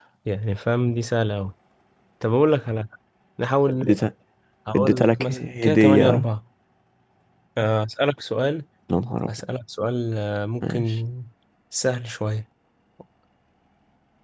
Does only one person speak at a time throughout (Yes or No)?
No